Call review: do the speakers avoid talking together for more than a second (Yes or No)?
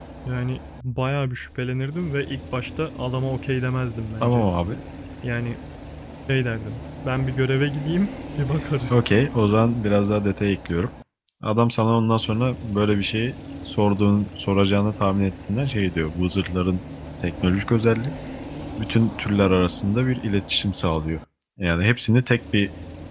Yes